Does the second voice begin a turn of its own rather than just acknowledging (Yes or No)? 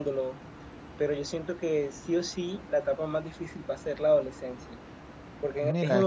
No